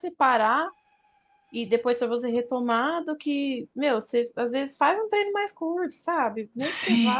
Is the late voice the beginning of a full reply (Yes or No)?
No